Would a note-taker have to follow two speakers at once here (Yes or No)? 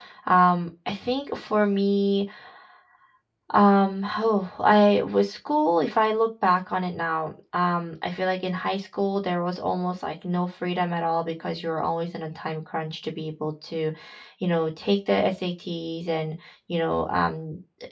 No